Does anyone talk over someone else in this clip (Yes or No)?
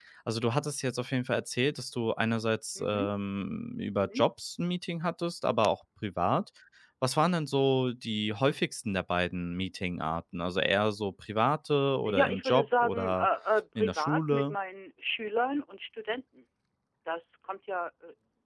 Yes